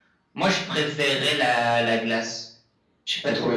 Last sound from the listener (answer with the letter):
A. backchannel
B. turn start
B